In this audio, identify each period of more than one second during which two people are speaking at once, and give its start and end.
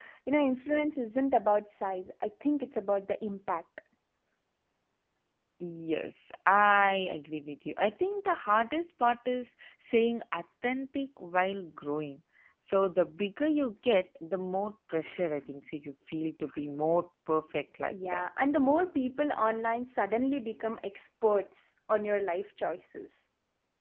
none

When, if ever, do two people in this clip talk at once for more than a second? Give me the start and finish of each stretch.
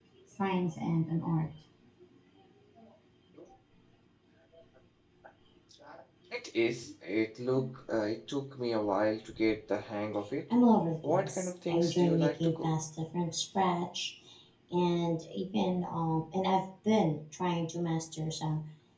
11.1-12.7

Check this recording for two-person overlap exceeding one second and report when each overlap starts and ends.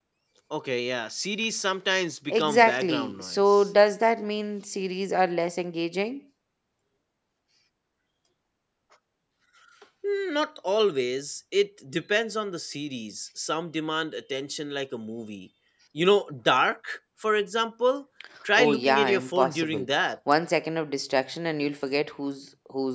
2.4-3.7, 18.6-19.9

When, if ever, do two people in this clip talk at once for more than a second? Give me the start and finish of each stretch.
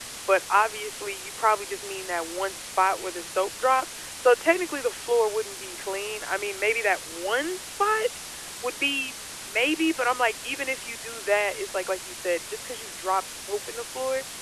none

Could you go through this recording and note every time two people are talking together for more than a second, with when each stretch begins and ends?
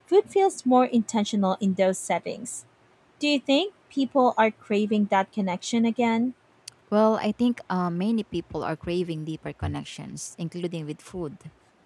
none

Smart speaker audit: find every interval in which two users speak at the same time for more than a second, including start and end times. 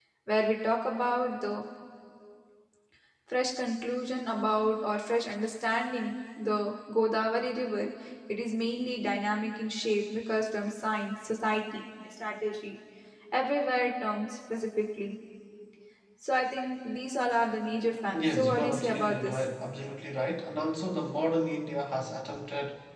18.2-19.4

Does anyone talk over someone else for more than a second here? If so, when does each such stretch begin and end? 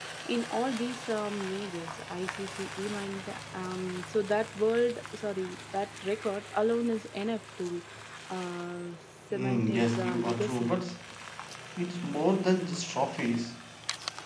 9.3-10.7

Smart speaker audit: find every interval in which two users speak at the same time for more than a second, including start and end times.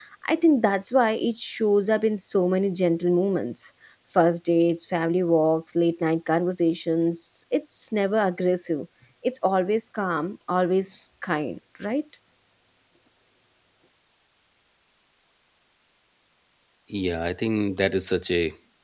none

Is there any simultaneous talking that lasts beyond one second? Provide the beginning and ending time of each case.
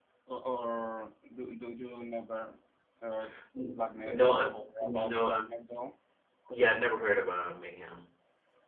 3.7-5.4

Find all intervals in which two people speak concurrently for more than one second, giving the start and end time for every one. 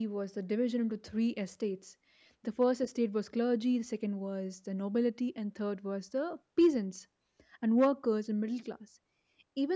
none

